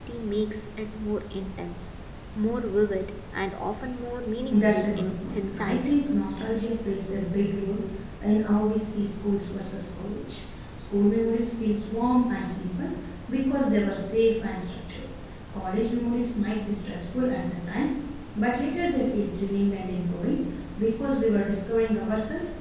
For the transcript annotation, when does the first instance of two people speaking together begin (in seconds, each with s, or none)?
4.5 s